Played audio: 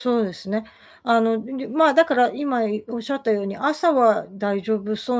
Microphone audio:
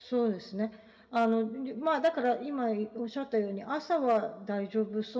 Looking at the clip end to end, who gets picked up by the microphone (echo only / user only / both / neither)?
echo only